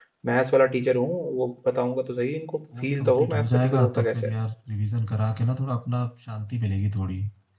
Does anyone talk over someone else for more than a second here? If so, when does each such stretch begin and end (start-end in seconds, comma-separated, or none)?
2.8-4.3